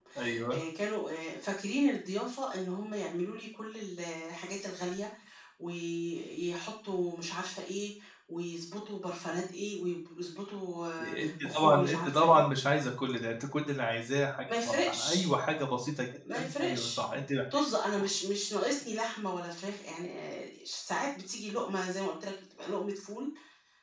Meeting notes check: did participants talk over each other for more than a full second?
Yes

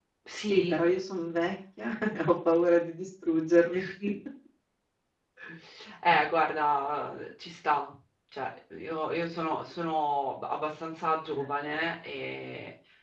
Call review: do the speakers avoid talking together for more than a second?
Yes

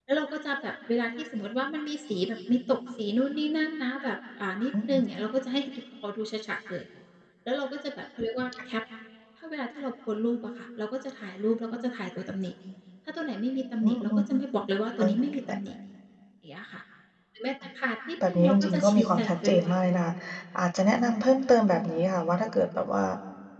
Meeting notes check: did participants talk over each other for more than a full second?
Yes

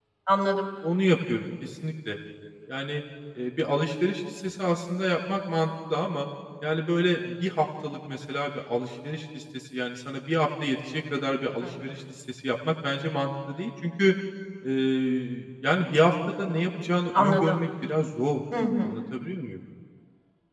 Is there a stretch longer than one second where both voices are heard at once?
No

